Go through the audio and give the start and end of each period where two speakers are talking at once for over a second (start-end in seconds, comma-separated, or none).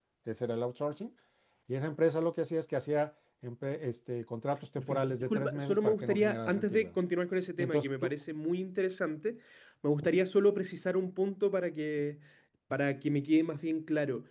4.8-6.9